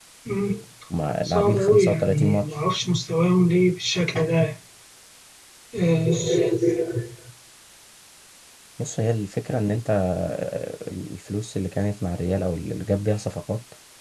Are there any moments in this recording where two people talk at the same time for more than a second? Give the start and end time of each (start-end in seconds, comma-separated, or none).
1.2-2.5